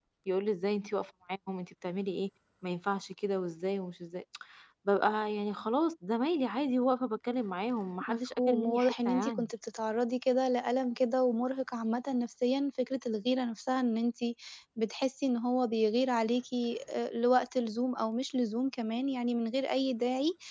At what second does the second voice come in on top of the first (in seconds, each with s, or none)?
8.0 s